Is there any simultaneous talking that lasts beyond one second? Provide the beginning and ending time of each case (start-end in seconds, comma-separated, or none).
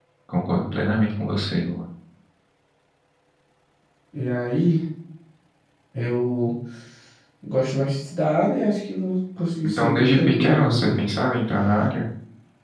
9.7-10.9